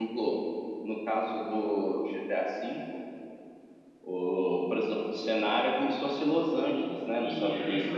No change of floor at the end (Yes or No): No